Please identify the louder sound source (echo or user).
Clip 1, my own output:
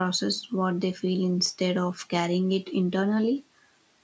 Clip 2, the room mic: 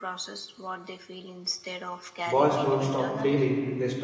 user